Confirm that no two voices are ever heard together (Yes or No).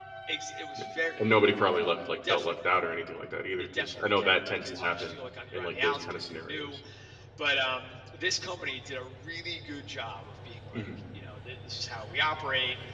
No